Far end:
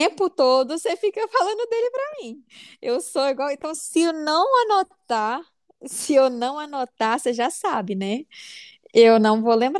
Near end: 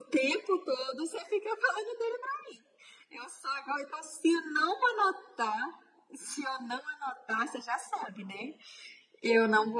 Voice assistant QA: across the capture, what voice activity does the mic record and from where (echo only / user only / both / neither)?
echo only